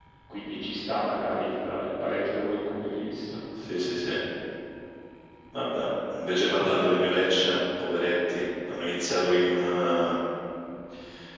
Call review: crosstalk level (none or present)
none